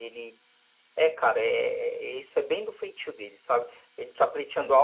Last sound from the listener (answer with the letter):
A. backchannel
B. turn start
A